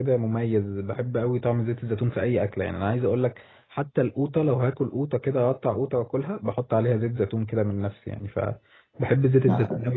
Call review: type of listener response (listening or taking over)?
listening